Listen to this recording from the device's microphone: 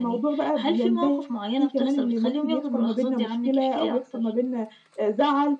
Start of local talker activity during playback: none

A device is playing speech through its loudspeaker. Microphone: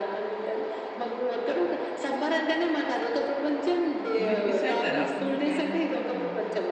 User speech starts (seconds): 4 s

